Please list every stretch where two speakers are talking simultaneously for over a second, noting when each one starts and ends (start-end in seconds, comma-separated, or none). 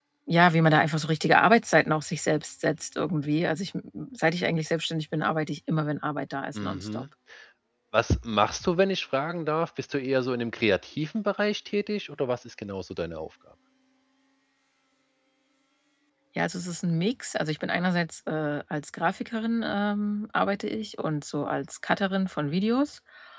none